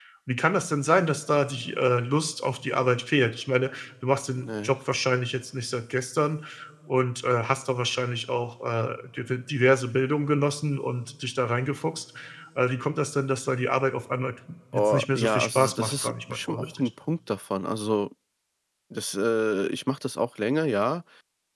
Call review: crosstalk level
present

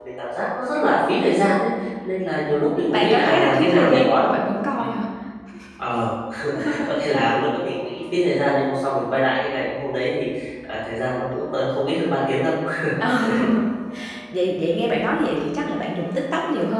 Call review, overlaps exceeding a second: present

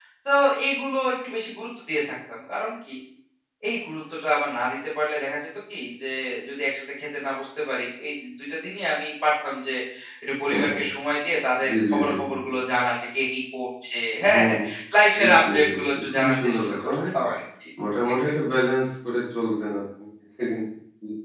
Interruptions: present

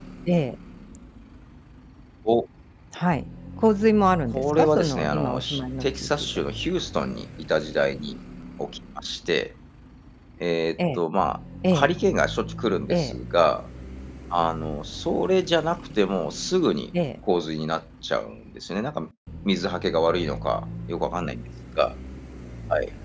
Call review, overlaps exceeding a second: present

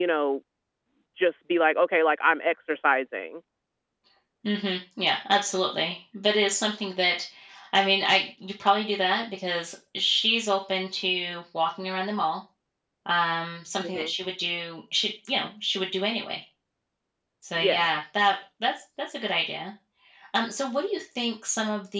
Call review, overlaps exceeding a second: none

